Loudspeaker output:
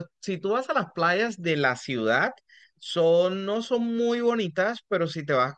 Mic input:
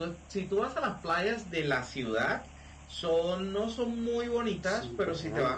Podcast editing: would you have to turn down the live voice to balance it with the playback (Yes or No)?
No